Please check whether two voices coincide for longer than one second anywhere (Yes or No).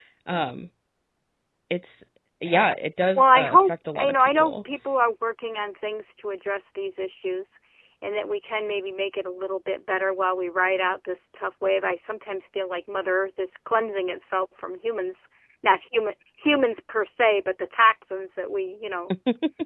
Yes